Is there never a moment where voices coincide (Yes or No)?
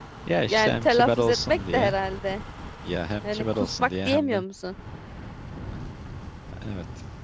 No